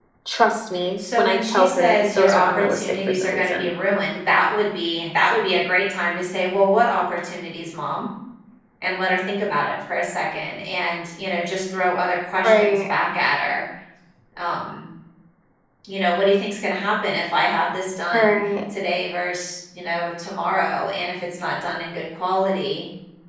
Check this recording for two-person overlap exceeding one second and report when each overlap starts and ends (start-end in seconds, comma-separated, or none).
1.0-3.7